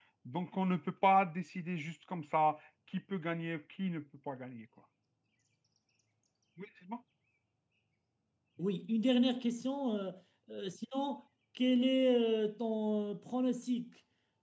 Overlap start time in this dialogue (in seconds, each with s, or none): none